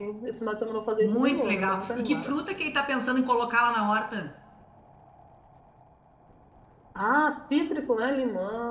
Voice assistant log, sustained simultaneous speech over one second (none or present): present